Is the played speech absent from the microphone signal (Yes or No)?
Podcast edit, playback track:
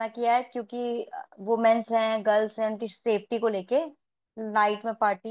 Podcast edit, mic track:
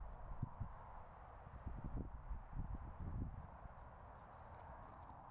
Yes